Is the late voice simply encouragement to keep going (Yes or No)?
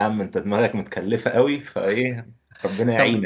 No